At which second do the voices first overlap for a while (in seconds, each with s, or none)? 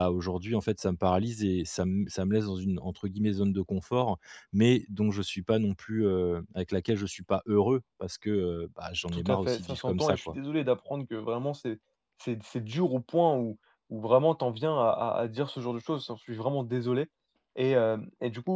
9.1 s